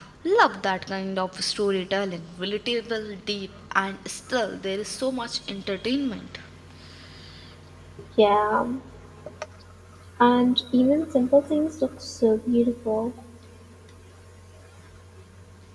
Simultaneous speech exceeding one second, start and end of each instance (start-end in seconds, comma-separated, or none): none